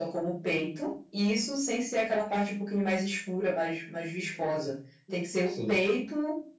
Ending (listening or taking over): listening